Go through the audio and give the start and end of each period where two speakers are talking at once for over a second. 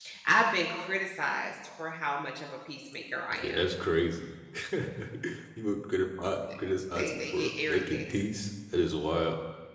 7.0-8.2

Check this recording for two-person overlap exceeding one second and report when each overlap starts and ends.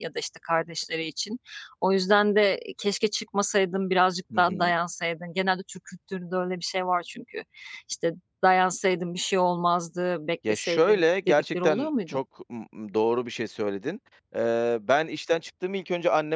10.5-12.2

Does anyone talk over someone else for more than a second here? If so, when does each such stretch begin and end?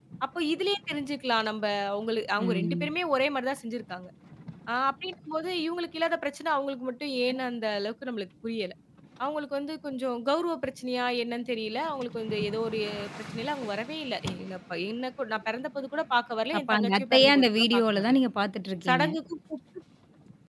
16.6-18.2

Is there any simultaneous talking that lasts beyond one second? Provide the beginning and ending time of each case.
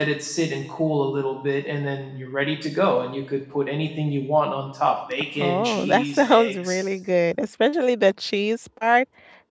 5.4-6.8

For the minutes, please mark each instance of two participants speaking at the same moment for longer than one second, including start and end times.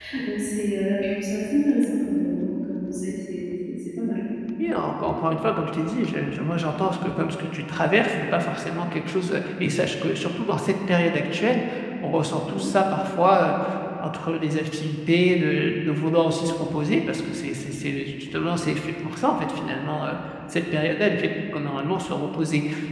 none

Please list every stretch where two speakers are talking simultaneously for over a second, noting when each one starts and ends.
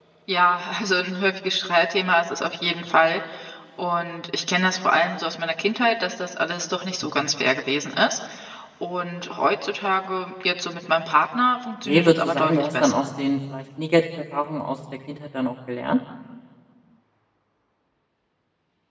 11.8-13.1

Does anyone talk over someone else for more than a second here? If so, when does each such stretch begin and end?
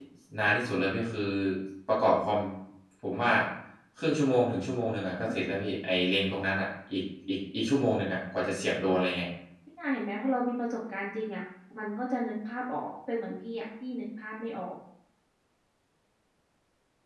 none

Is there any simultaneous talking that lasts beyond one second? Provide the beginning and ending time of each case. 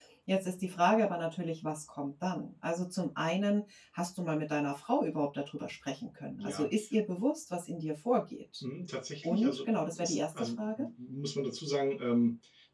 9.2-10.8

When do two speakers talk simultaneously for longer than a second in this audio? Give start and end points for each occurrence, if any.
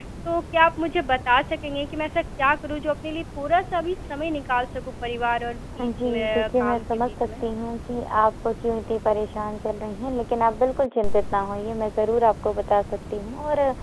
5.8-7.3

